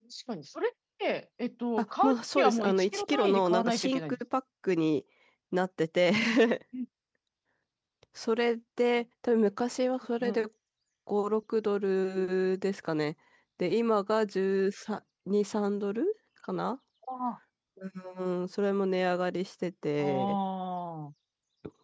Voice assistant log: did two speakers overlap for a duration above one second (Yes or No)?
Yes